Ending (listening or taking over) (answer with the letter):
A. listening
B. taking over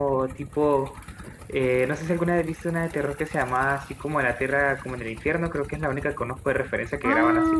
B